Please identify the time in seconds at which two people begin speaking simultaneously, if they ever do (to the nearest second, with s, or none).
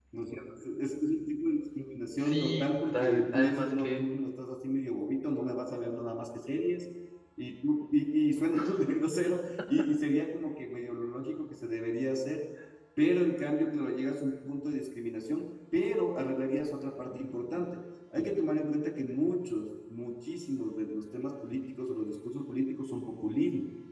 2 s